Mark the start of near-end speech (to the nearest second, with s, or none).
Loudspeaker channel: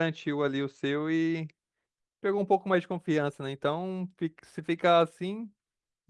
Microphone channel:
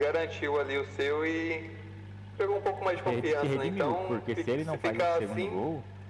3 s